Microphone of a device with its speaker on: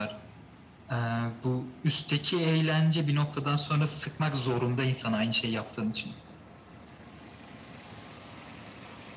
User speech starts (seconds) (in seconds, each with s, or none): none